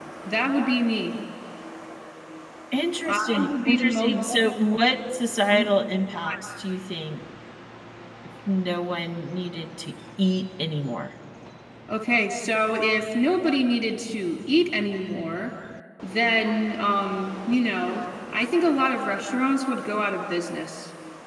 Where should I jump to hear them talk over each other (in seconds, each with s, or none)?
3.0 s